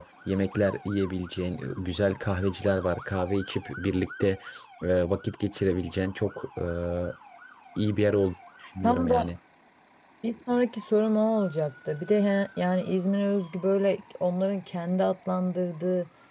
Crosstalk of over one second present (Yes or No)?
No